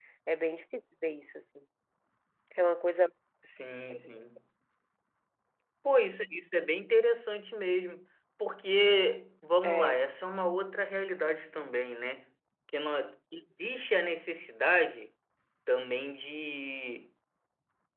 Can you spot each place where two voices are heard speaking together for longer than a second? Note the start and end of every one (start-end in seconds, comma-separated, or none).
none